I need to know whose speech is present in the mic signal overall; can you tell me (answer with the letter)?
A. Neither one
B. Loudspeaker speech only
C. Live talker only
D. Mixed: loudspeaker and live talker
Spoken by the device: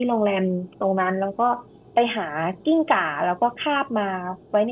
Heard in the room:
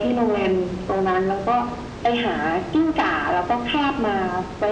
B